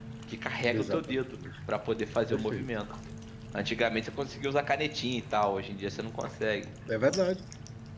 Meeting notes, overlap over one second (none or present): none